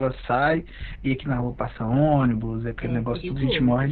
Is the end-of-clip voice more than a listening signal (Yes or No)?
No